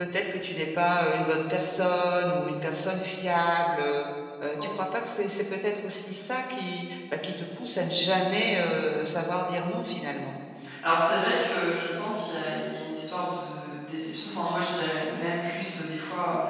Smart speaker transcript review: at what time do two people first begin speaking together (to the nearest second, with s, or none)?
none